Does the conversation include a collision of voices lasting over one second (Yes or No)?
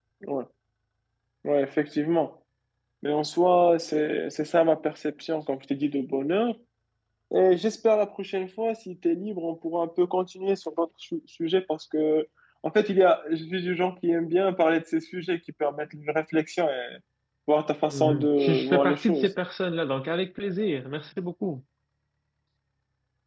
Yes